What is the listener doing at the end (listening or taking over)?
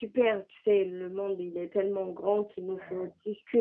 listening